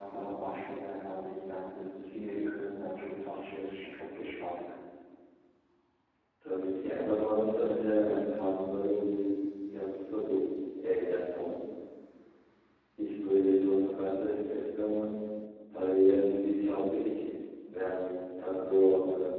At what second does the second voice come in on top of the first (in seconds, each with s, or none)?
none